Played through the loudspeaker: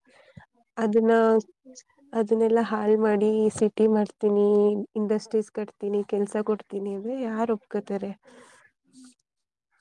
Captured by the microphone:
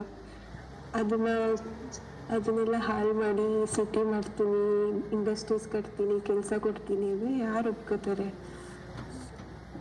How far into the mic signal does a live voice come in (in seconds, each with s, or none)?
none